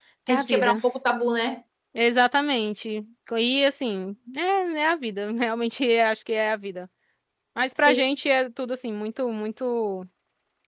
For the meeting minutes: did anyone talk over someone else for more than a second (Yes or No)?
No